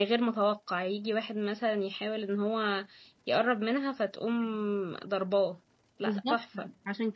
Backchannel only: No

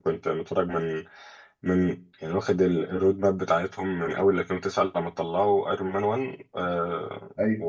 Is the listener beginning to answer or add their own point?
No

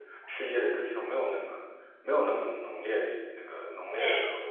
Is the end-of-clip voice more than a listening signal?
Yes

